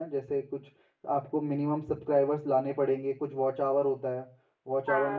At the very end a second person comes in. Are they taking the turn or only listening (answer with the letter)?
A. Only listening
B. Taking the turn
A